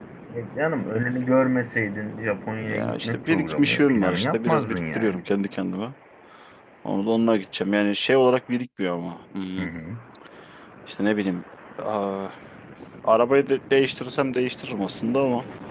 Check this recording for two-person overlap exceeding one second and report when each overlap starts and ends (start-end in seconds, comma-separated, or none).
2.7-5.2